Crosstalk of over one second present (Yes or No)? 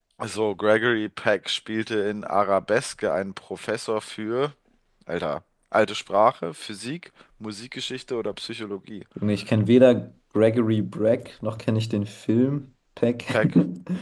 No